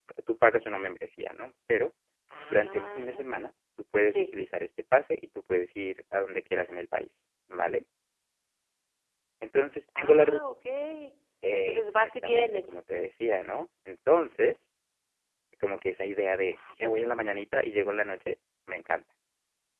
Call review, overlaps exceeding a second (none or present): present